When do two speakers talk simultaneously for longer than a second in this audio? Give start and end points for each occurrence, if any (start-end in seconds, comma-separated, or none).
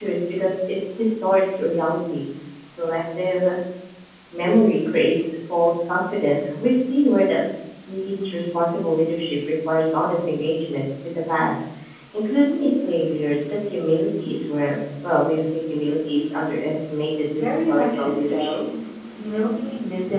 17.3-18.6